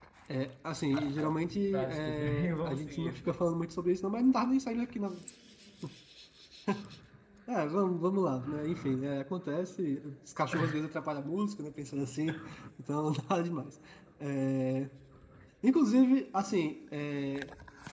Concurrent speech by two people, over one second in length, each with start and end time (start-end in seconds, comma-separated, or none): 0.9-3.3